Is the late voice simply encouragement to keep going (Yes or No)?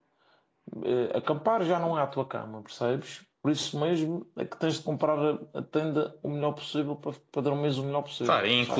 No